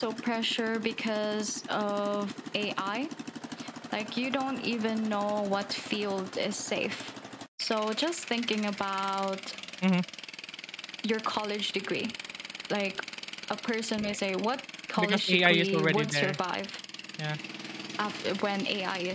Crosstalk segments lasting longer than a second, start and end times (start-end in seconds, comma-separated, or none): 15.0-16.4